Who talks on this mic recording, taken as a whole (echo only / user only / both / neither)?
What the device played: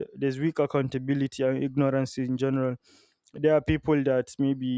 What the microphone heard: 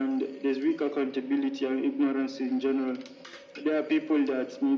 echo only